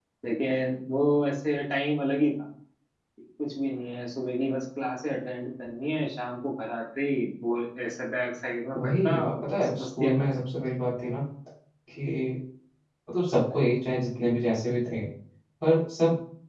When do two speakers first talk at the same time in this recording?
9 s

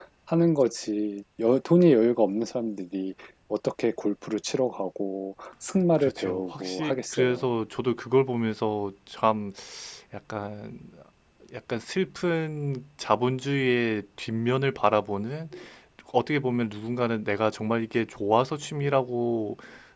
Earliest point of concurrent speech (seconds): 6 s

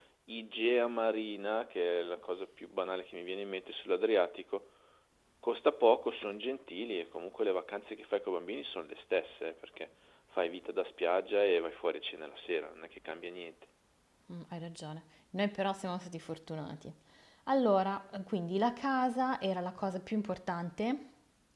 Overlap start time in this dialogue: none

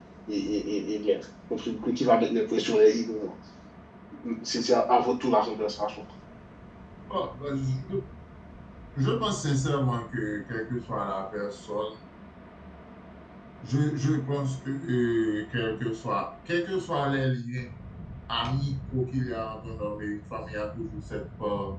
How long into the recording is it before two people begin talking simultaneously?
none

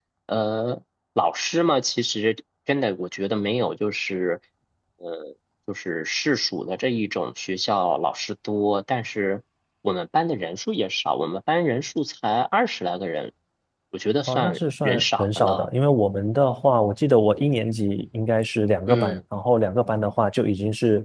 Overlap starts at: 14 s

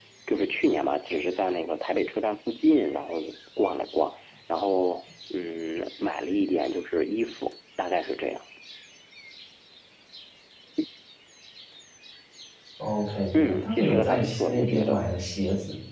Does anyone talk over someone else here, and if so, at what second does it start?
13 s

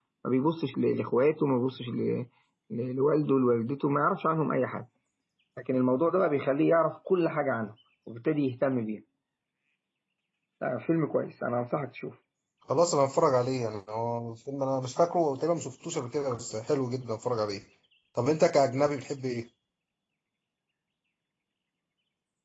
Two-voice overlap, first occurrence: none

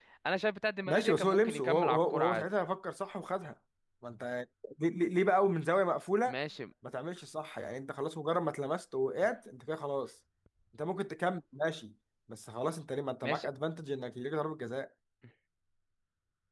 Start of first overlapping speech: 1 s

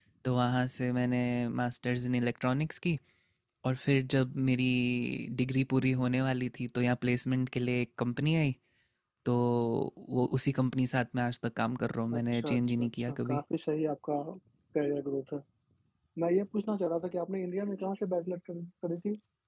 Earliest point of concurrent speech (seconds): 12 s

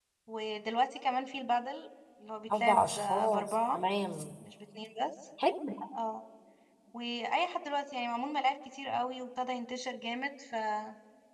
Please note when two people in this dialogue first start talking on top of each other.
2 s

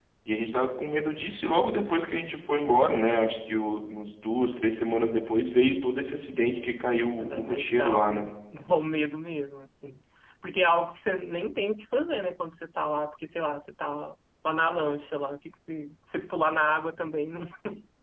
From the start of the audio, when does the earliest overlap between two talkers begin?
7 s

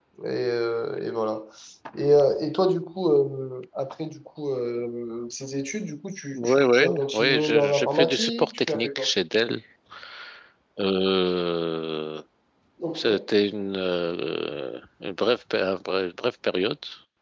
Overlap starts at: 6 s

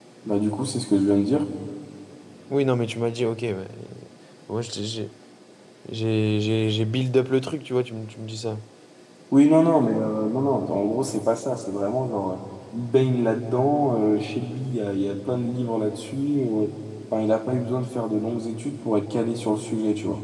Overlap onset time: none

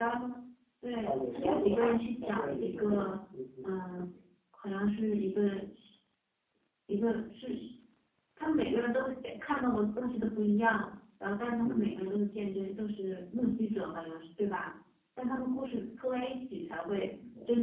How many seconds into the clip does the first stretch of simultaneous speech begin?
1 s

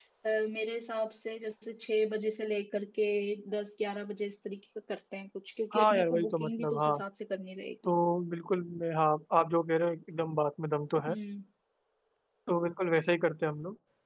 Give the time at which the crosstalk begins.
6 s

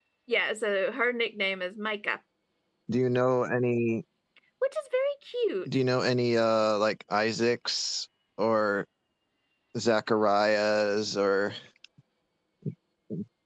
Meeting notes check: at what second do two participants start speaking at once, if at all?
none

